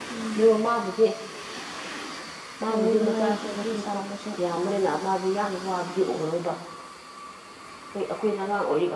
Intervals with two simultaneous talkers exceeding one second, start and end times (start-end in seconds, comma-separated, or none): 2.6-4.0